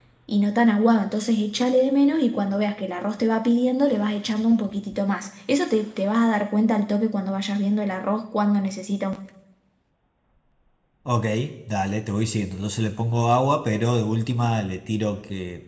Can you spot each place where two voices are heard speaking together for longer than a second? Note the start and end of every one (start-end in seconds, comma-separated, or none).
none